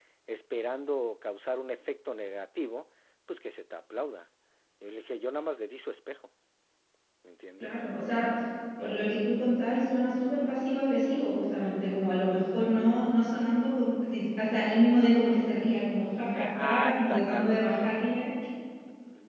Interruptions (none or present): present